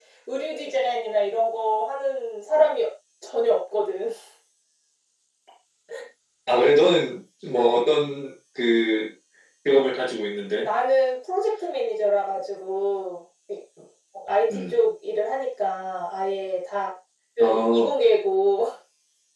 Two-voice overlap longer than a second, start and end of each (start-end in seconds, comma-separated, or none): none